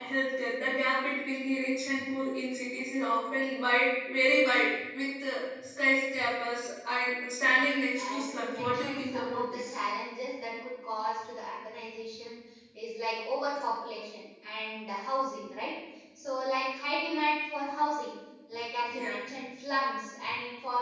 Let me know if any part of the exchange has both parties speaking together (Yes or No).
Yes